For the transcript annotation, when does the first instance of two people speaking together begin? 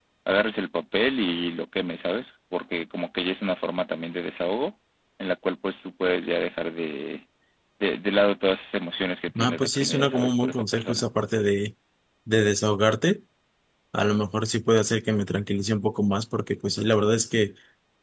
9 s

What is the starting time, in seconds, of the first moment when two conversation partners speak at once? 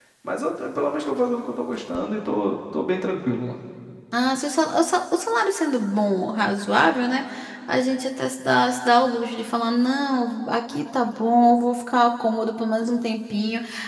none

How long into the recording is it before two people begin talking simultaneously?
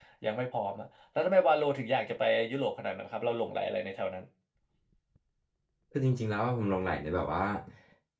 none

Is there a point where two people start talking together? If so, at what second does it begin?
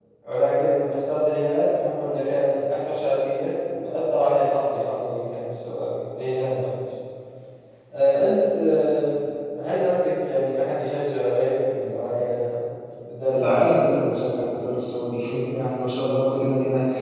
13 s

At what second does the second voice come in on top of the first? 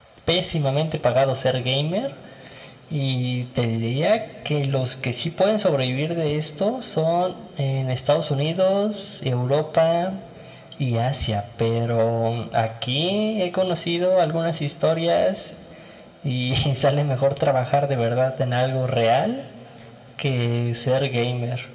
none

